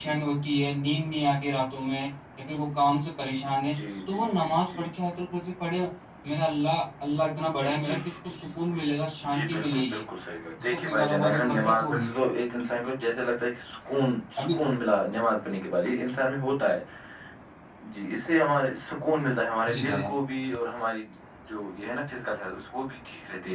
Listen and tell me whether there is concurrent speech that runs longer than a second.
Yes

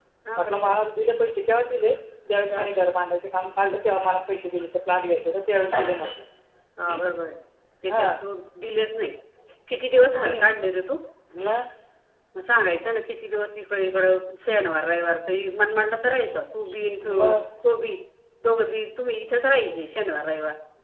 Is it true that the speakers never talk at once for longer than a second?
Yes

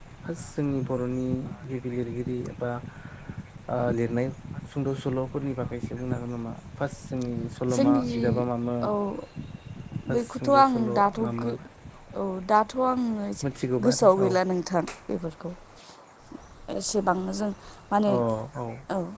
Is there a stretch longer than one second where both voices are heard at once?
Yes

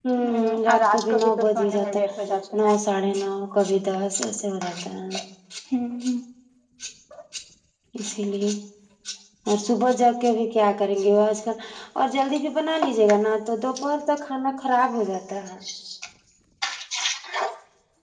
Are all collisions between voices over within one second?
No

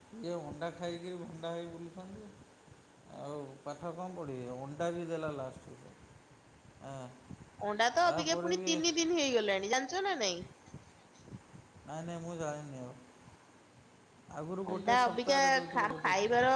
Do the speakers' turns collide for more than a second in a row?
Yes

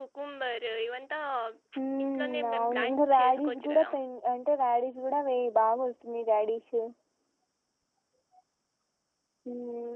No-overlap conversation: No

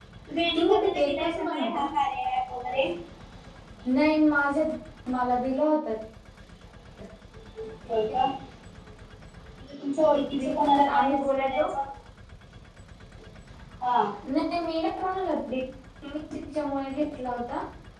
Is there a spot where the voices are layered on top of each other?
Yes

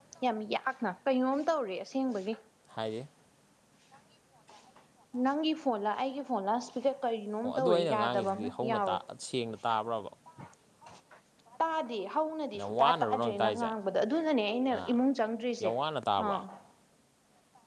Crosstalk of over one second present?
Yes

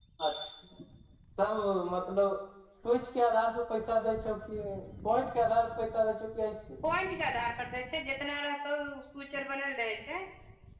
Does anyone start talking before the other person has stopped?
No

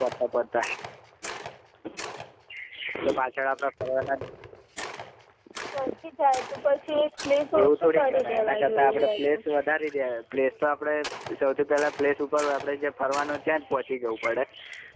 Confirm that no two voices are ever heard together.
No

